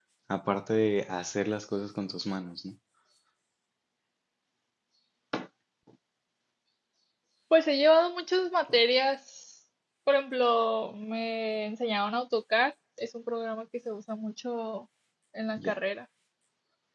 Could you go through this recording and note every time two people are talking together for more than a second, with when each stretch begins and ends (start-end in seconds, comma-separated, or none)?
none